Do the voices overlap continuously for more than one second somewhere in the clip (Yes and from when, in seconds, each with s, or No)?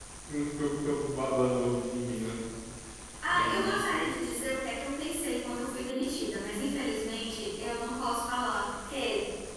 No